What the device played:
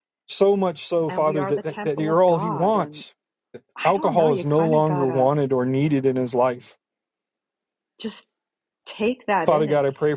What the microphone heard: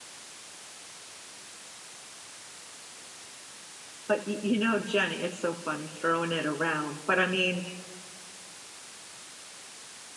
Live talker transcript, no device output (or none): But y- you know, Jenny, it's so funny throwing it around. But I mean,